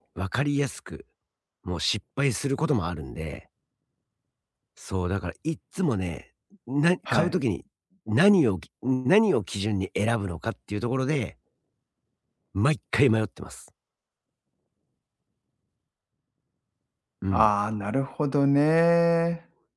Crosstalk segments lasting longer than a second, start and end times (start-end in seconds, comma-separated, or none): none